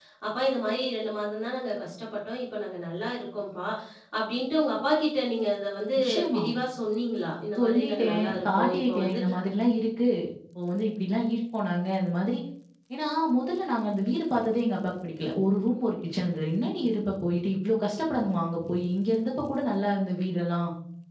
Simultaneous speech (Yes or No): Yes